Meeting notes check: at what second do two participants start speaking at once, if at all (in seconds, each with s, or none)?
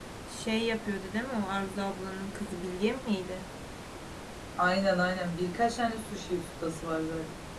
none